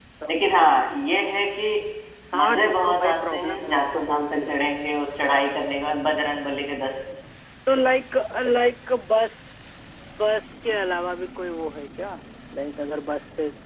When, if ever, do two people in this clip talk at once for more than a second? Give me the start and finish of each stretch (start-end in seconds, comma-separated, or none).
2.4-4.5